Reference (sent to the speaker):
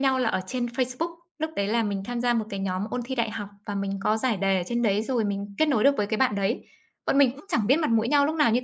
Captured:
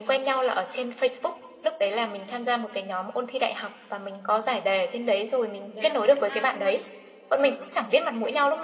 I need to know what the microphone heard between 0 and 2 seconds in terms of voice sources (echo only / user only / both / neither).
echo only